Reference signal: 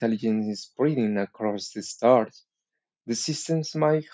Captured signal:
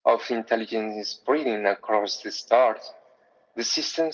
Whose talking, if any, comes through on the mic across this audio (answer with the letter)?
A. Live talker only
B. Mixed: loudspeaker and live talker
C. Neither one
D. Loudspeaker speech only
D